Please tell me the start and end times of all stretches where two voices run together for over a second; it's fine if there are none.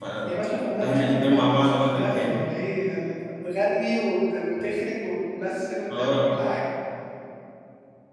0.8-2.4

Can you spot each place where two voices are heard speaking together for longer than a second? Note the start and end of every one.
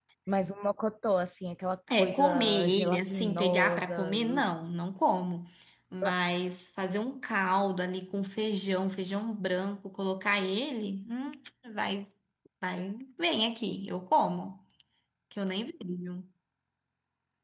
2.0-4.4

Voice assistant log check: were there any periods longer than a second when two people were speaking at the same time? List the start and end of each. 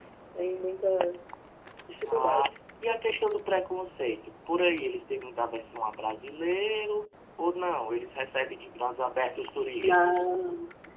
none

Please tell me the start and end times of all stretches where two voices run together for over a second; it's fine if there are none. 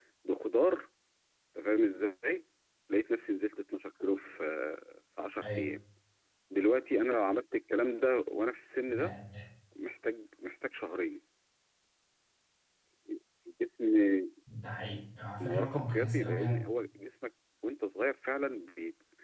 15.4-16.6

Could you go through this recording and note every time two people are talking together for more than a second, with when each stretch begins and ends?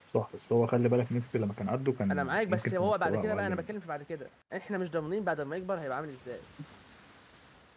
2.1-3.6

